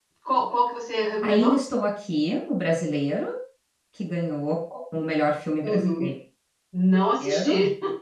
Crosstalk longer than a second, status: none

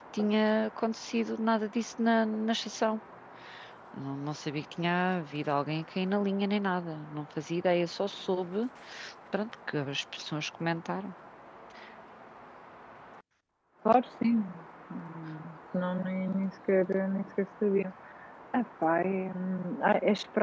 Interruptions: none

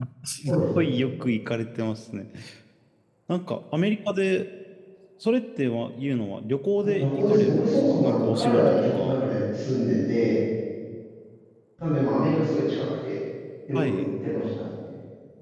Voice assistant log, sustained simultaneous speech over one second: present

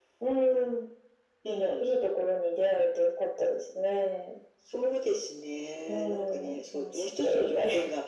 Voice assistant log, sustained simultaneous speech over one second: present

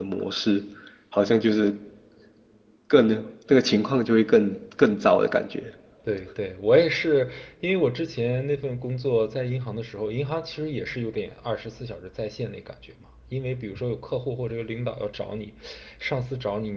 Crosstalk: none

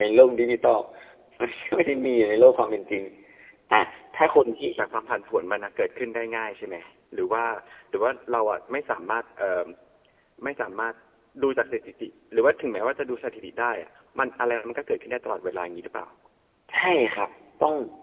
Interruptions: none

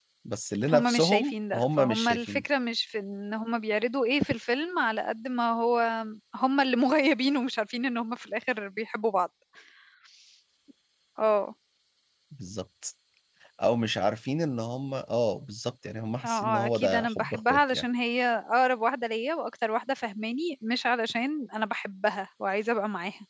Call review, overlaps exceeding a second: present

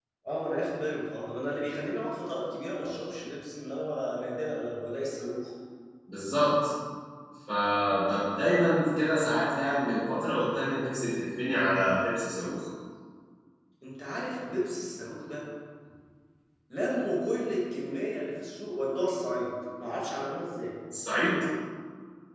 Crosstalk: none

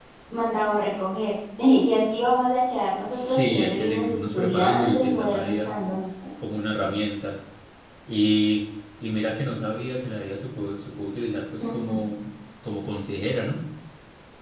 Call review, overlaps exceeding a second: present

